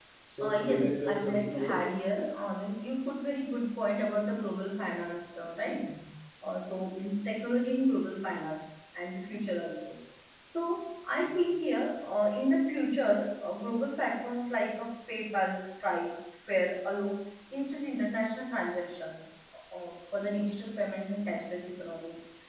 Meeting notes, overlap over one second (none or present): present